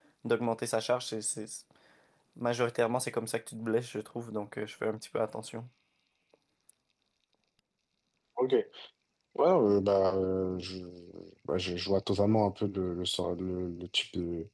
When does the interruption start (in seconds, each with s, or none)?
none